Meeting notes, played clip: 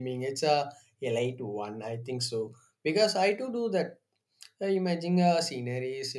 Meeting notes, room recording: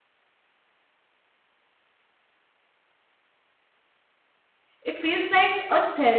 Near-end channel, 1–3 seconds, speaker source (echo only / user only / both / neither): neither